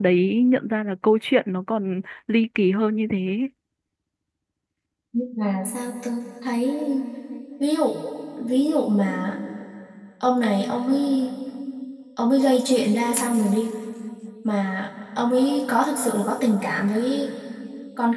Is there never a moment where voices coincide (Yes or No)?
Yes